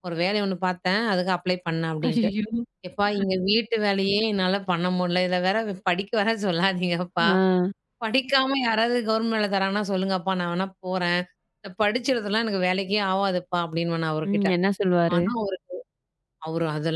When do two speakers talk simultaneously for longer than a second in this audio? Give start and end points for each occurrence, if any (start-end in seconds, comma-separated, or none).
none